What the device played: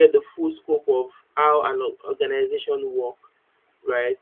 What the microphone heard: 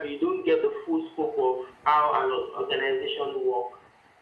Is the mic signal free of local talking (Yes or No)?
Yes